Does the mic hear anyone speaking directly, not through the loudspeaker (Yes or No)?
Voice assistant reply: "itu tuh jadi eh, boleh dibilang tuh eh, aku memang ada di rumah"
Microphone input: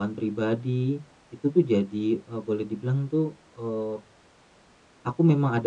No